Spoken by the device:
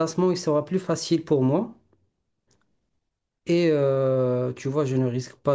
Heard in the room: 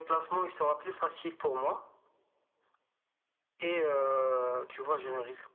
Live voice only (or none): none